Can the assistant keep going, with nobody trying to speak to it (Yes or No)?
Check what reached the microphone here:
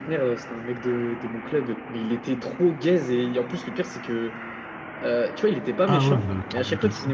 No